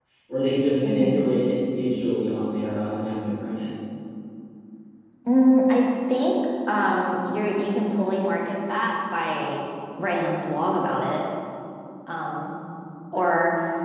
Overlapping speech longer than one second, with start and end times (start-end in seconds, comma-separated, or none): none